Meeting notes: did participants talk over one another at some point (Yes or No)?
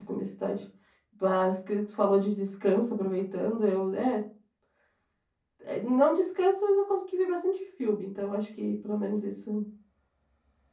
No